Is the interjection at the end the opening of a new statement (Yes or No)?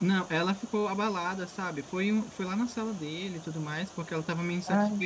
No